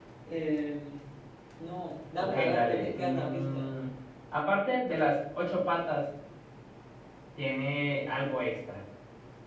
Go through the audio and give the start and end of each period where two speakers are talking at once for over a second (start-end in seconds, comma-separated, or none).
2.2-3.6